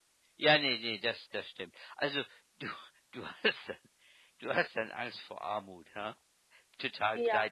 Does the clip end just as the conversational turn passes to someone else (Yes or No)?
Yes